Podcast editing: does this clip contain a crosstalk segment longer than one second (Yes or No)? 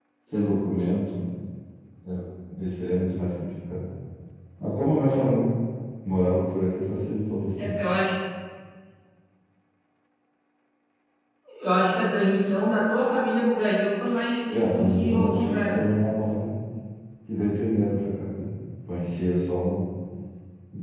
Yes